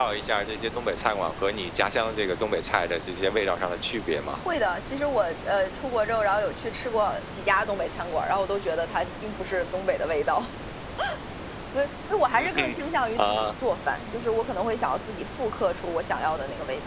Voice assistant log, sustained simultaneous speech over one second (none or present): none